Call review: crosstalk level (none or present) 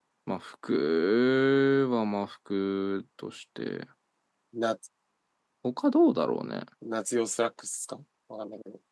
none